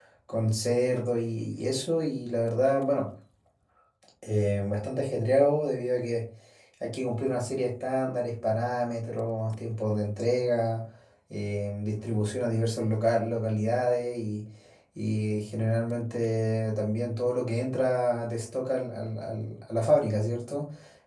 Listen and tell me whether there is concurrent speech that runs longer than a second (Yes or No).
No